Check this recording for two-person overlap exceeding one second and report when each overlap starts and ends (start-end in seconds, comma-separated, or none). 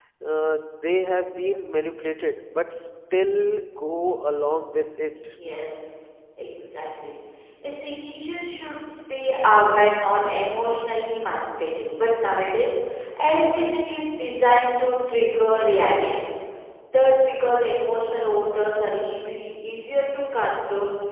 none